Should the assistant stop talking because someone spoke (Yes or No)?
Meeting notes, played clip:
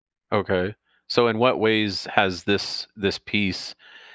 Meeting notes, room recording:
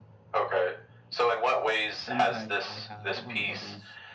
Yes